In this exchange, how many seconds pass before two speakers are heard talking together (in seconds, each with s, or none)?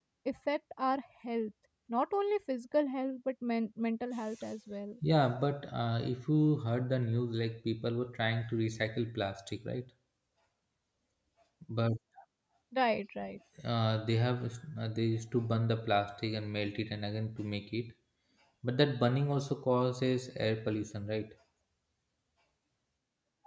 none